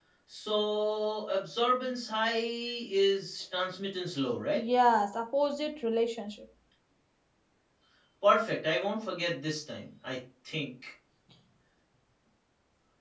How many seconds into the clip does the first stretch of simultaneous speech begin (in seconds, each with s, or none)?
none